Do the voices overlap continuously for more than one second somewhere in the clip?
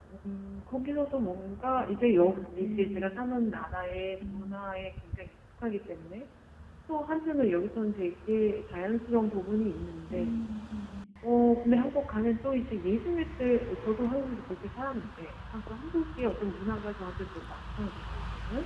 Yes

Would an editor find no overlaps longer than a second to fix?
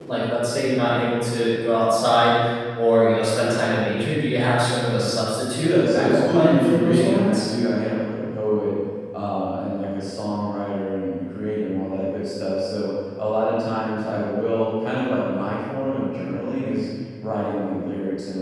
No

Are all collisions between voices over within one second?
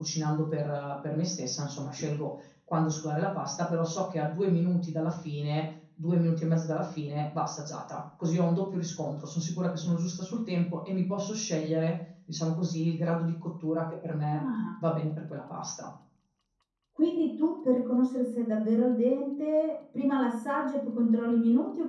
Yes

